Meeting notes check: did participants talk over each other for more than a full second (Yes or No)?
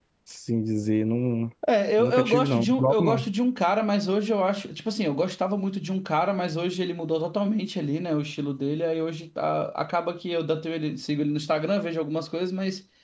Yes